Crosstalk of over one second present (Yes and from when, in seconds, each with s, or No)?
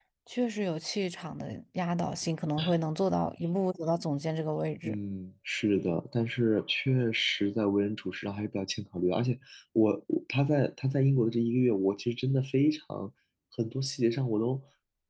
No